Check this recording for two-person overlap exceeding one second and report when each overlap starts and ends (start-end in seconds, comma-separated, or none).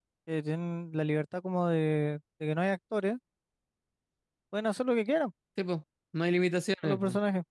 none